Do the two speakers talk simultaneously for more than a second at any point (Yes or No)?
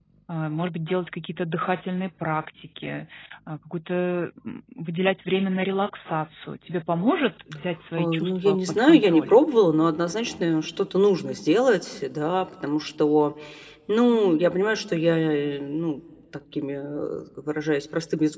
Yes